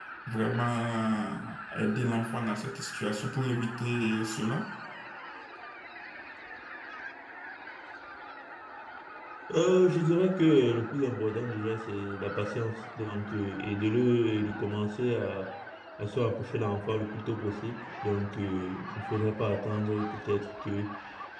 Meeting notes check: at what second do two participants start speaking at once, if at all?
none

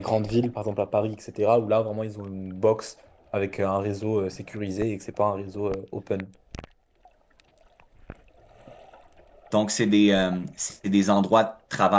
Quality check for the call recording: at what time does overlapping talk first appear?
none

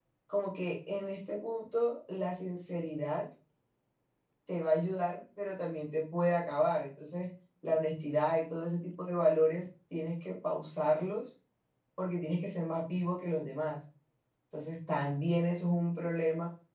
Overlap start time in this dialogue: none

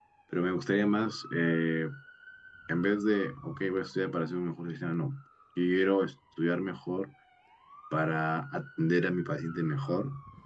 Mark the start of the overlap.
none

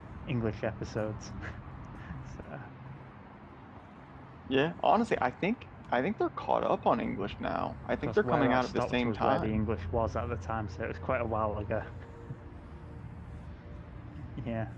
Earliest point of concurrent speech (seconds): 8.0 s

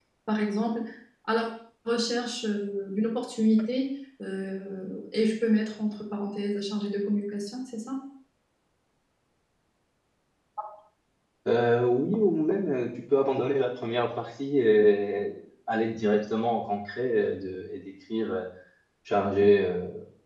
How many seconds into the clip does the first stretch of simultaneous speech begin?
none

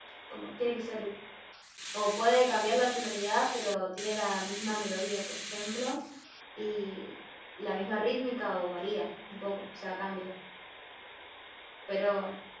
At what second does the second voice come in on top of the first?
none

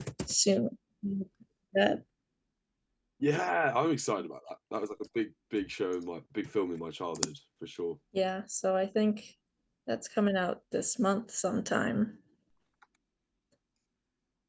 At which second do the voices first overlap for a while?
none

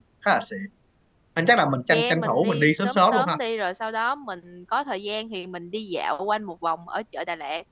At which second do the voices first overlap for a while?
1.9 s

